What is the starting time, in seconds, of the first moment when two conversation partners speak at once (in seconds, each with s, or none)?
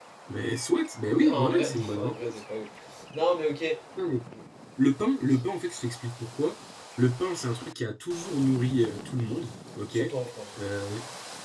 1.1 s